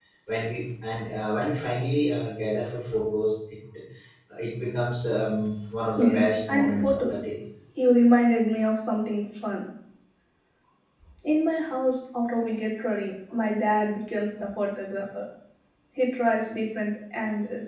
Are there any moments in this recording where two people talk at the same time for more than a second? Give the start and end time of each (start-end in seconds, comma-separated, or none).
6.0-7.2